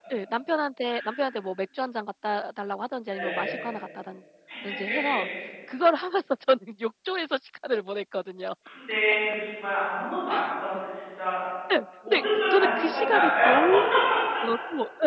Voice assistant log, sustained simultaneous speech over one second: present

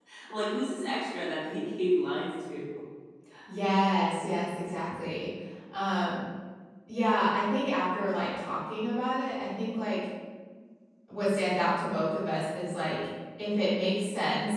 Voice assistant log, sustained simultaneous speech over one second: none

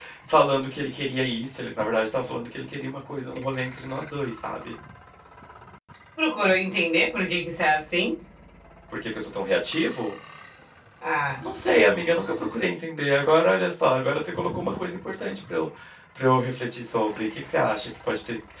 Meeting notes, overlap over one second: none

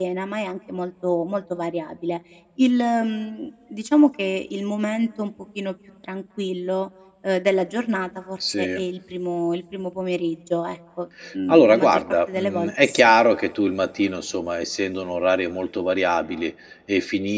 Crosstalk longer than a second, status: present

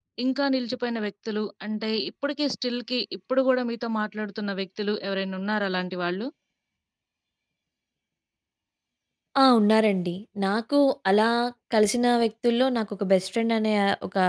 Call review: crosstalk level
none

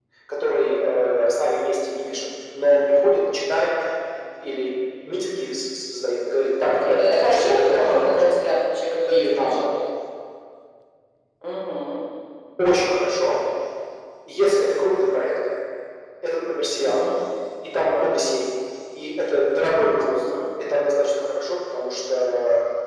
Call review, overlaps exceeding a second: present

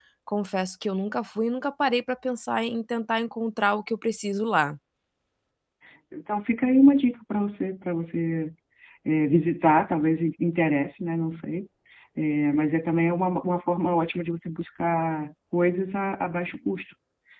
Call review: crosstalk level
none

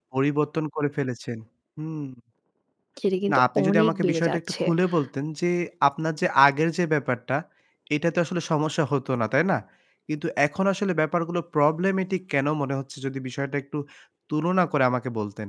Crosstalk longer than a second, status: present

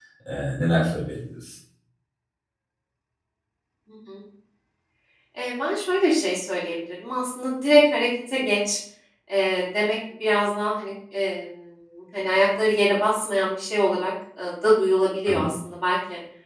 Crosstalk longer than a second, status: none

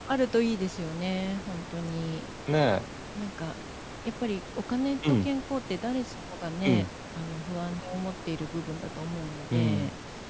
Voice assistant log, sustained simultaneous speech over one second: none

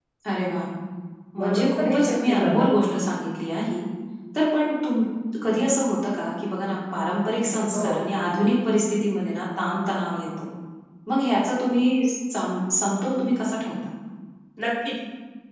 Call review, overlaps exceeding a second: present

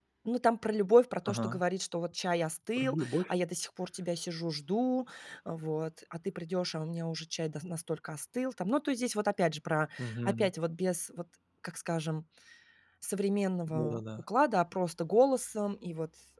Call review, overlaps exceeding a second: none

